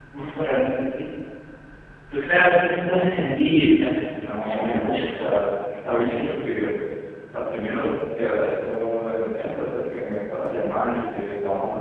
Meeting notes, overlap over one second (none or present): present